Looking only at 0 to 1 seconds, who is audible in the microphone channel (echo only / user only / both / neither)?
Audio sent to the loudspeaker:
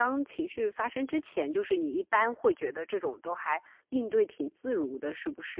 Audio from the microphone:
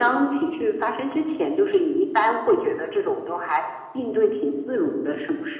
echo only